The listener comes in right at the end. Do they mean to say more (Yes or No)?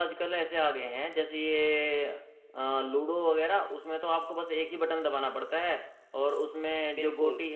No